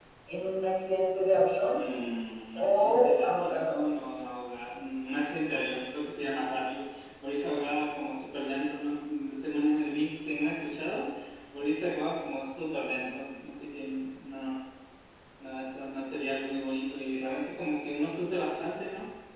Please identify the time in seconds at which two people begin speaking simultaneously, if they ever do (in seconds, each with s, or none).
2.5 s